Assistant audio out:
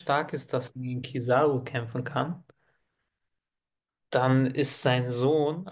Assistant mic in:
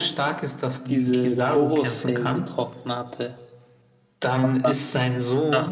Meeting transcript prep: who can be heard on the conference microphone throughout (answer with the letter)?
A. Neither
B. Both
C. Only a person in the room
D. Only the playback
B